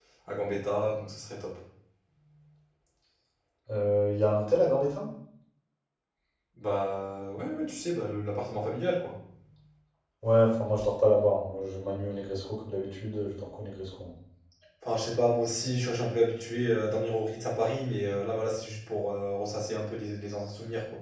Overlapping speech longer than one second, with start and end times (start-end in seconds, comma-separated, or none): none